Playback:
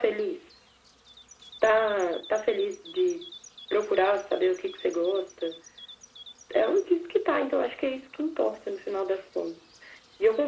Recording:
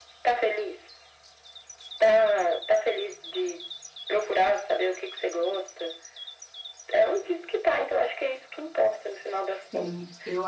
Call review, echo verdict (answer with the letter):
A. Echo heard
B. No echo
A